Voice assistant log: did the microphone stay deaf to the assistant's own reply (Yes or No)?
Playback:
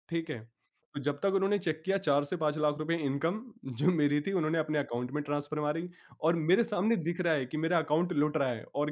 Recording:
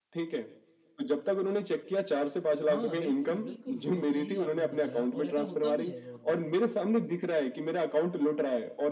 No